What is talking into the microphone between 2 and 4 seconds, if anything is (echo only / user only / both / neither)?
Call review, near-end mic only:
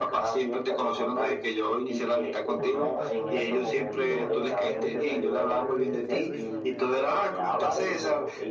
both